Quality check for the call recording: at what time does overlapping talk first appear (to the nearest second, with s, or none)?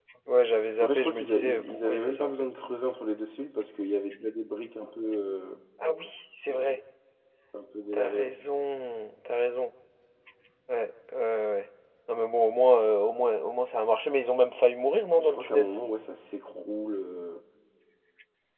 1 s